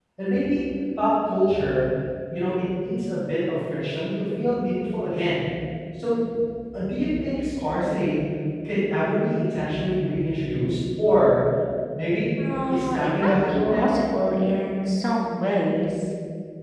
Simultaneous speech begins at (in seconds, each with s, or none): 12.4 s